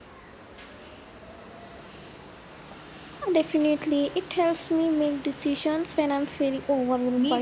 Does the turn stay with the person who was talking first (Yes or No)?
No